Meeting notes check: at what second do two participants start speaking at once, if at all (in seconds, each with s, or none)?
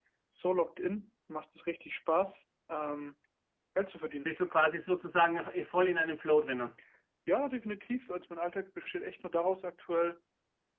none